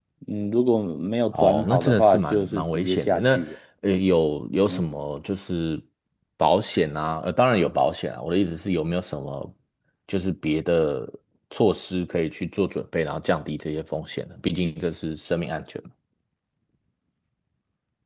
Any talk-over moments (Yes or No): Yes